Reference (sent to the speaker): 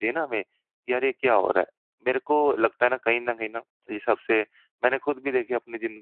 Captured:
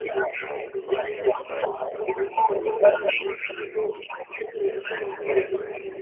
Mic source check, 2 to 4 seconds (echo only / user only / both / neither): both